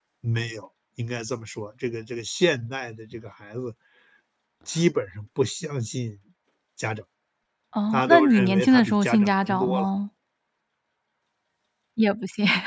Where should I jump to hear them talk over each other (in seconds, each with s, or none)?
7.9 s